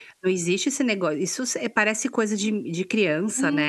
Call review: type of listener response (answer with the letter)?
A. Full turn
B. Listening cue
A